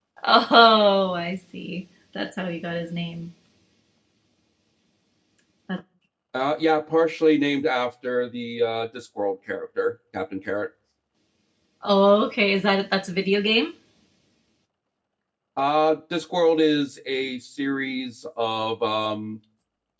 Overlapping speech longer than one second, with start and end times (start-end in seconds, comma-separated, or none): none